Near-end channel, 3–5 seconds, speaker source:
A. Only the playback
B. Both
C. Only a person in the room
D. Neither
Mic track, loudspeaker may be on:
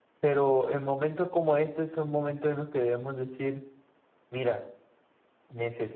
C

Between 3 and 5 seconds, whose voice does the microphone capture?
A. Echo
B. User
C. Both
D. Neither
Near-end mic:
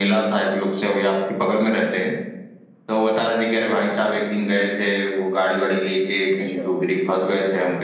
A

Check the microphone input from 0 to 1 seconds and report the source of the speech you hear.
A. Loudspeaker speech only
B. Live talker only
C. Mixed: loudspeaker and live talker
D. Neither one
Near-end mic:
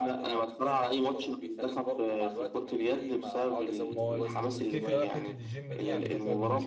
A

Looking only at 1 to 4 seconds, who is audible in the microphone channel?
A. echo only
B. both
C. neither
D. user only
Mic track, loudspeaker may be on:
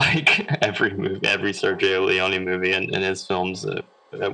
A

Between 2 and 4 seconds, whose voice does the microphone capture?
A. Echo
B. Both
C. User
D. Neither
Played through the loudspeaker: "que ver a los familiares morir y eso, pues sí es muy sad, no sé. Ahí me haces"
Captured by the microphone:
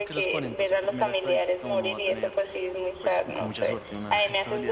B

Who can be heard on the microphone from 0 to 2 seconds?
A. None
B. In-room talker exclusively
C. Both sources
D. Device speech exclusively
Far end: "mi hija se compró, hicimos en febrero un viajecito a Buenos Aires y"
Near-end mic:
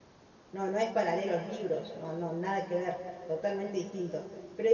B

